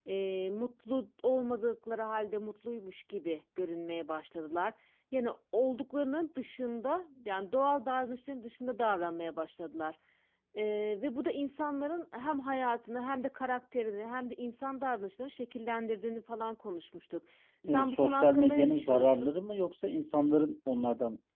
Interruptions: present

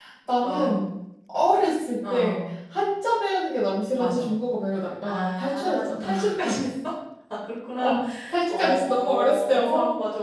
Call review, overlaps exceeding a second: present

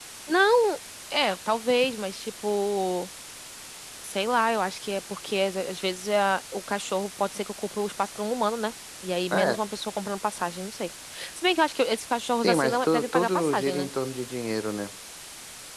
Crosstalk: present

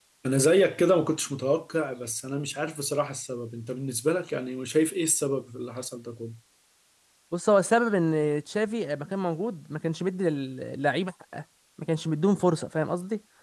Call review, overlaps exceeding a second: none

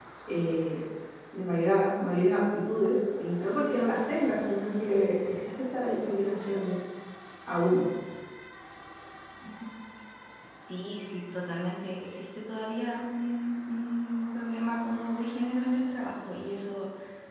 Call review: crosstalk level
none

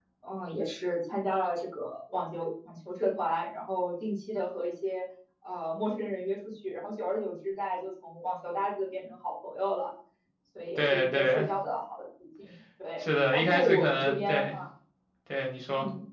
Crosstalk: present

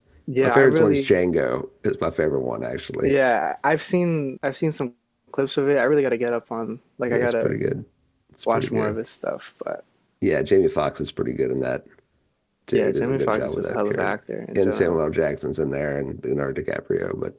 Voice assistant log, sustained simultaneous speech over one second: present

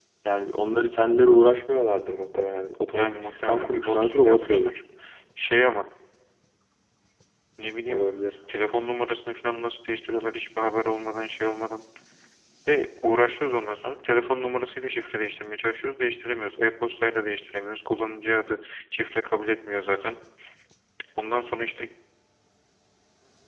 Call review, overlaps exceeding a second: present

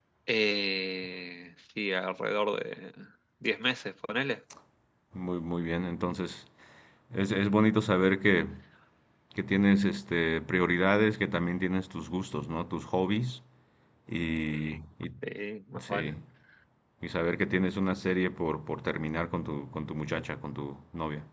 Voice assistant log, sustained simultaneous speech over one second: none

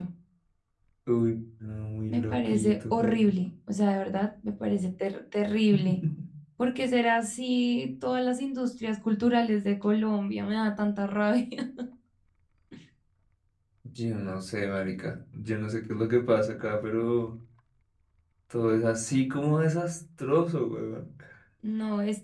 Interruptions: present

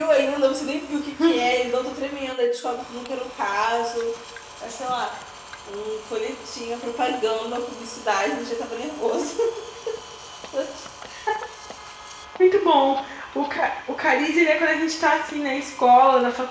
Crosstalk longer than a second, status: none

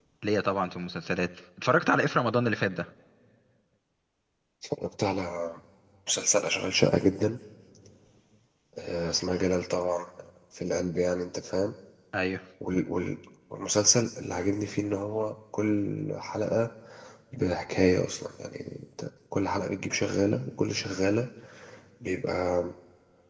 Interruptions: none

